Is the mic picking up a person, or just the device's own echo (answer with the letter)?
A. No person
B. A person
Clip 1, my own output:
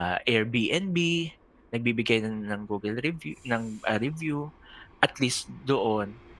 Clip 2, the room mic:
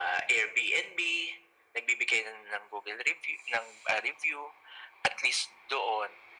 A